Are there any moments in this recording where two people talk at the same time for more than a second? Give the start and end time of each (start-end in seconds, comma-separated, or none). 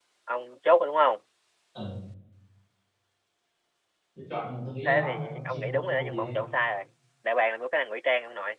4.8-6.4